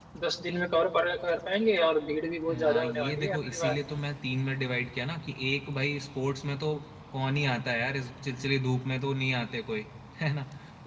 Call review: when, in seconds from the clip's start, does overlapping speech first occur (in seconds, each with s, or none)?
2.5 s